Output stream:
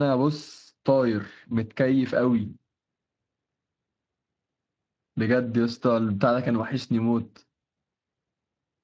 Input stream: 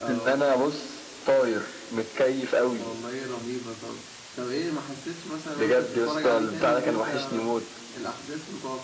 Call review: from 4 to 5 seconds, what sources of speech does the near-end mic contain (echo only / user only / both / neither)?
user only